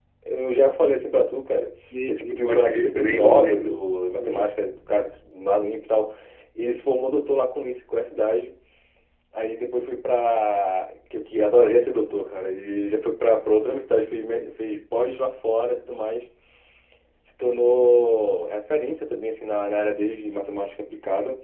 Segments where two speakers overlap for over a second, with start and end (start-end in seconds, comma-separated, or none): 2.1-3.8